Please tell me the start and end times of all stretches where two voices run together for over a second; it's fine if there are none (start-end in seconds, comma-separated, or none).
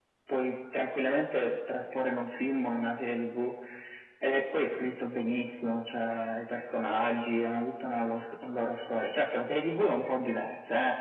none